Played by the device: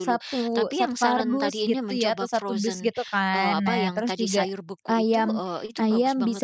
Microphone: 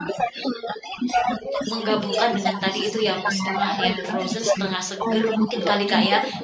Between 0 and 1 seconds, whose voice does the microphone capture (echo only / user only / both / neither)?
echo only